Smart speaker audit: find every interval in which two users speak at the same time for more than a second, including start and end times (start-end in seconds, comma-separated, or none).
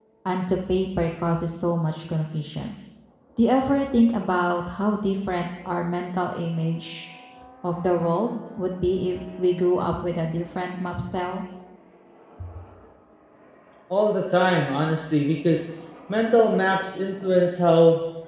none